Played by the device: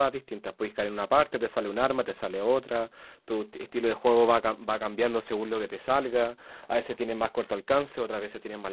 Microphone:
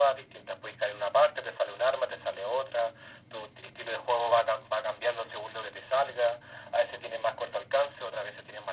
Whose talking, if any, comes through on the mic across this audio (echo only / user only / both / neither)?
echo only